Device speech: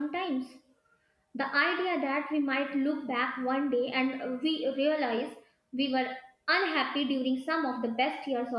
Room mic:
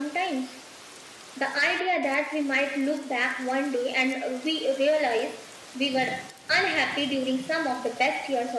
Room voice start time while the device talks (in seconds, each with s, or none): none